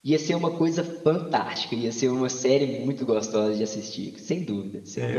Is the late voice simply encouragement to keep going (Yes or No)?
No